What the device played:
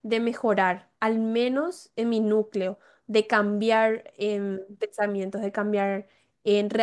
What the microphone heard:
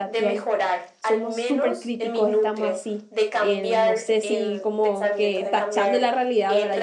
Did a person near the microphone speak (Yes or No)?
Yes